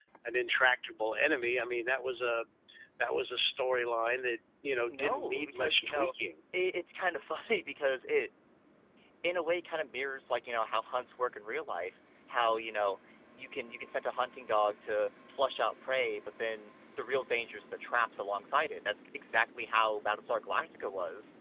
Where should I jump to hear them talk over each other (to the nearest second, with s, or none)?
5 s